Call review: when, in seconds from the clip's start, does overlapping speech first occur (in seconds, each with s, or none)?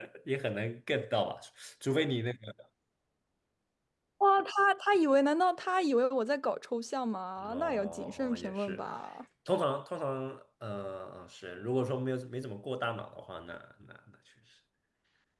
7.4 s